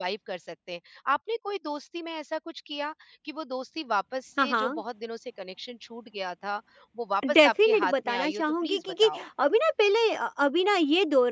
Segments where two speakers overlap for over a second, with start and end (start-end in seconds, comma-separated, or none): 7.3-9.2